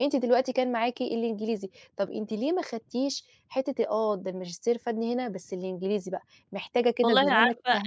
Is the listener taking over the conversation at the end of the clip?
Yes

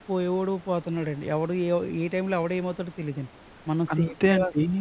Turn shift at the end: Yes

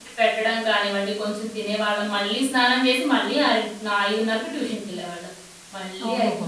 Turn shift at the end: No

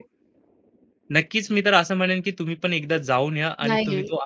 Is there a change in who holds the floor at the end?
Yes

